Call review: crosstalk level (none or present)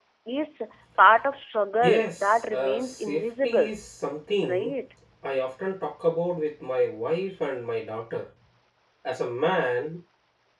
present